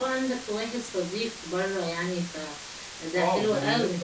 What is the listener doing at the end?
taking over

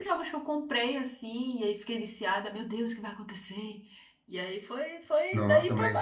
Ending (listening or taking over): taking over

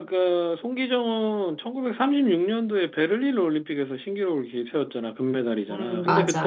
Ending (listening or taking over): listening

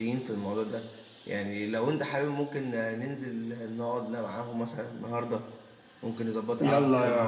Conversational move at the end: taking over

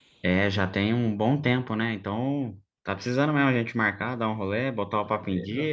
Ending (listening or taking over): taking over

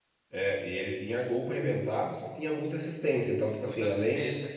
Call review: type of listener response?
listening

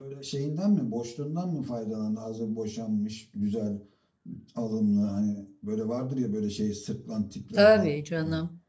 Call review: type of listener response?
taking over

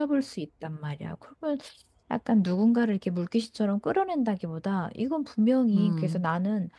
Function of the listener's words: listening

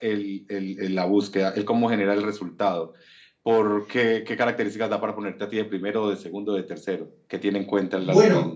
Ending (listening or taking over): taking over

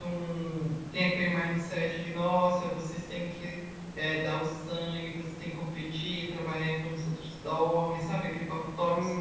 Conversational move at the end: taking over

